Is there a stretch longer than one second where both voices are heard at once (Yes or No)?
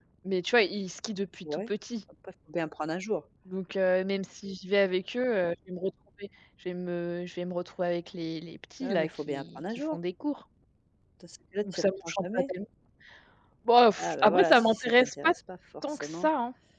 Yes